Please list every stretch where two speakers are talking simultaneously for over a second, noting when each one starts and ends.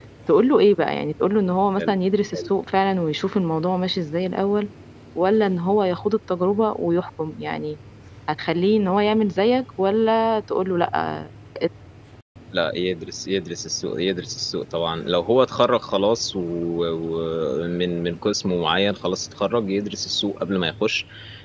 none

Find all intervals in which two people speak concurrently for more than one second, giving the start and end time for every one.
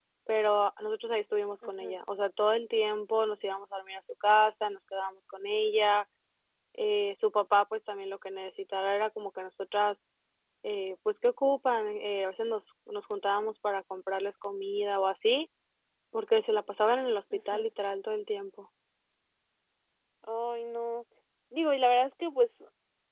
none

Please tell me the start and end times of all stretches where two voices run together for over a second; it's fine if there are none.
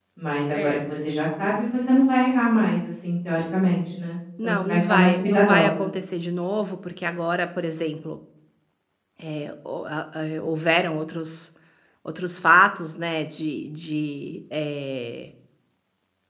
4.4-5.9

